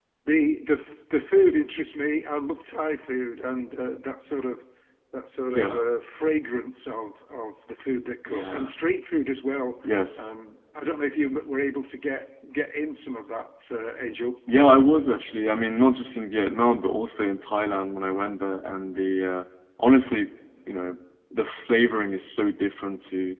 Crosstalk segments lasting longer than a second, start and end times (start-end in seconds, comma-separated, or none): none